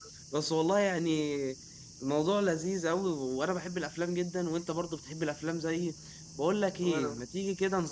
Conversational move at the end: listening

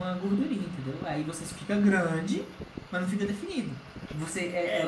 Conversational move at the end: taking over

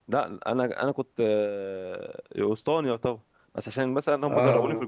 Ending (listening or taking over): listening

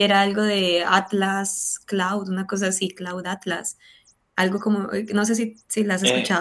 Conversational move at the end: taking over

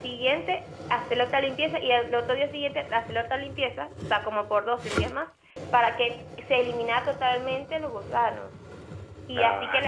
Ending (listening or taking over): listening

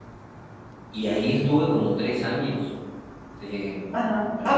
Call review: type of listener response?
taking over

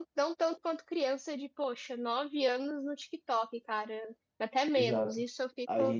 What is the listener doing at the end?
taking over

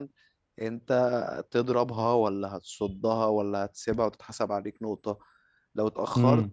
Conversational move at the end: listening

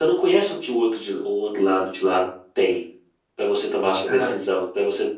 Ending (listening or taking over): listening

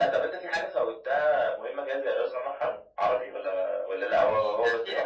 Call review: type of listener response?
taking over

